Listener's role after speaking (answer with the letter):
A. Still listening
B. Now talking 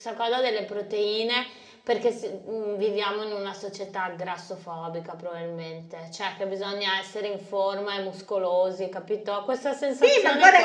B